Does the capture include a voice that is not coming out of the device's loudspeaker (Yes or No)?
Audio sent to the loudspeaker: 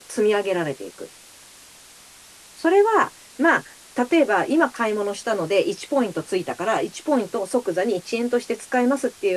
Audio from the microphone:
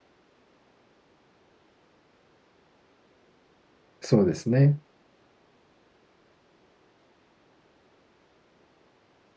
Yes